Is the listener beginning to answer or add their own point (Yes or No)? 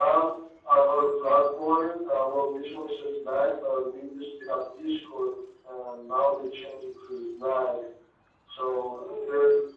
No